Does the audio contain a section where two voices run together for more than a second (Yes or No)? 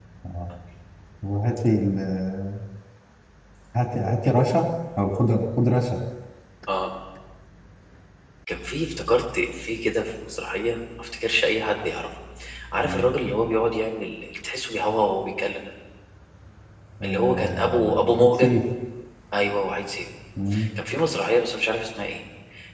Yes